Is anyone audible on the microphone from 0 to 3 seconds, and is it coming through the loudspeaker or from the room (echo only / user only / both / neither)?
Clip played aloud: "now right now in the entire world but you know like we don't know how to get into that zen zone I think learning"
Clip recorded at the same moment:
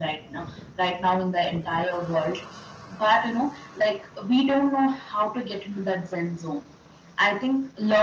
echo only